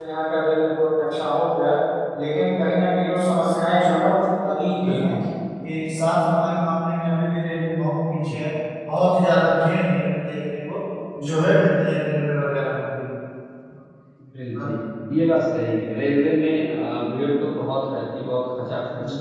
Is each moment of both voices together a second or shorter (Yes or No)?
Yes